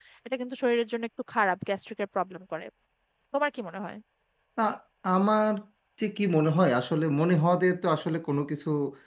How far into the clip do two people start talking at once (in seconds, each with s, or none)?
none